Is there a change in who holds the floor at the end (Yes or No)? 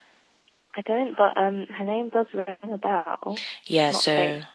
Yes